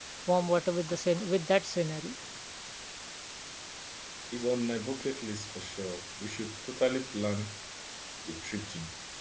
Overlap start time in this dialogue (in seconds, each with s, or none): none